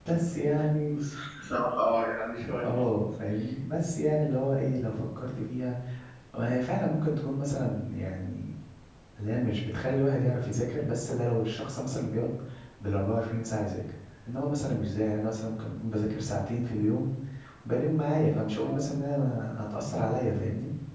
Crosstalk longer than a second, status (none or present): none